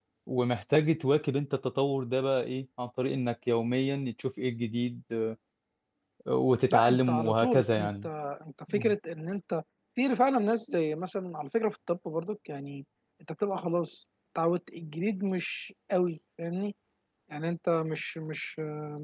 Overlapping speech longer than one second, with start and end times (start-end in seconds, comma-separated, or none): 6.7-8.1